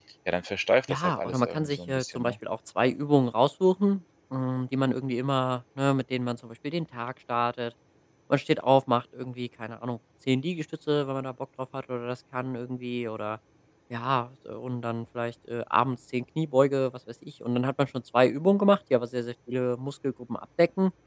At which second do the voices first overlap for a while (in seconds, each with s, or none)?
0.9 s